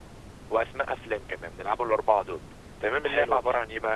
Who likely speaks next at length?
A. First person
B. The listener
A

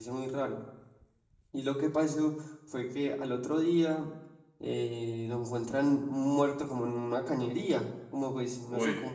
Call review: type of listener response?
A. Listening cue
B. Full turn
A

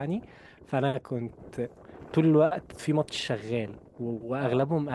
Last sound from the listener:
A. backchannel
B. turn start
A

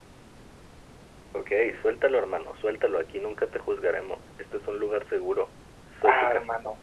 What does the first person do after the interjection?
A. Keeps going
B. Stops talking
B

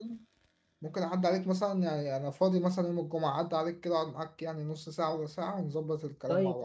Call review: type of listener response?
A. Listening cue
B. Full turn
B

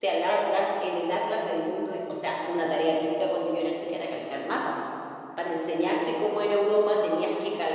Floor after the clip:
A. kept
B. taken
A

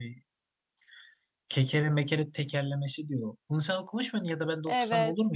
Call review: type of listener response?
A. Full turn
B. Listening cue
A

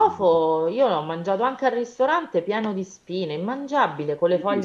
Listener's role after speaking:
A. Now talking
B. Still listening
A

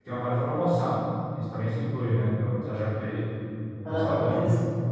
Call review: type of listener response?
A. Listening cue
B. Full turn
B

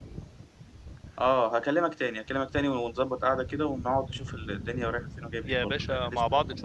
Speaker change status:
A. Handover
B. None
A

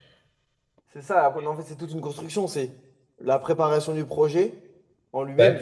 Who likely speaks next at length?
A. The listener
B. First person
B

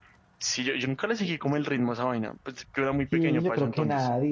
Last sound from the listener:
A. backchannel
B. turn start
B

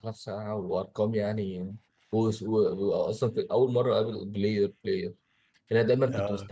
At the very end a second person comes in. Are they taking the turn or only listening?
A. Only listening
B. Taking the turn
A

